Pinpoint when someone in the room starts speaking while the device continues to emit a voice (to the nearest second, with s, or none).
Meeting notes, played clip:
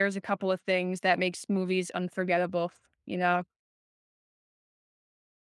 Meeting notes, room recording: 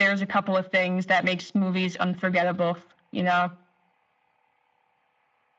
none